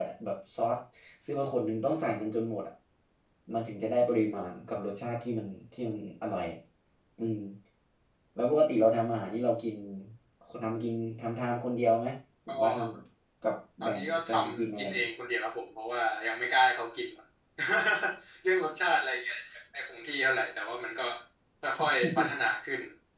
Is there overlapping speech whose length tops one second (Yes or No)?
Yes